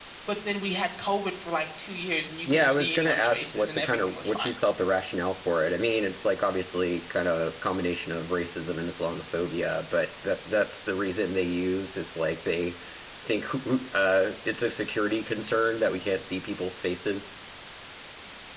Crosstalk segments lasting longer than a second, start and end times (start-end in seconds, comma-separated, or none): 2.5-4.5